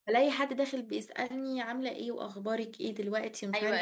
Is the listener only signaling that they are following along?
No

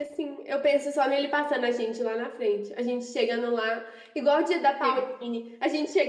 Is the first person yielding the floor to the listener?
No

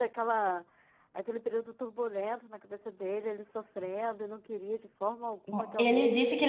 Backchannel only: No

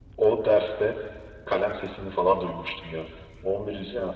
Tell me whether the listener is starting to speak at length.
No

